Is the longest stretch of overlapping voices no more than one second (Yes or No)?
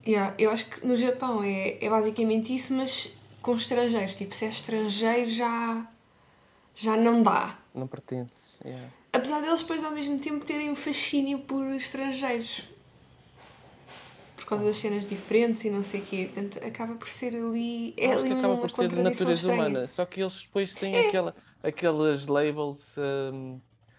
No